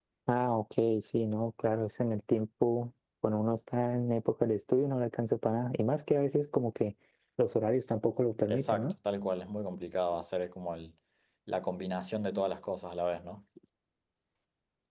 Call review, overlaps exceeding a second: none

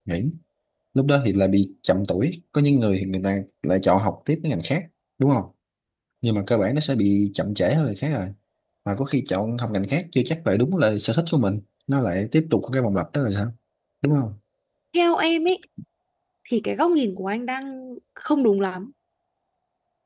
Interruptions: none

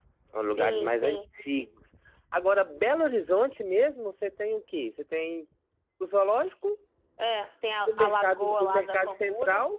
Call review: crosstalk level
present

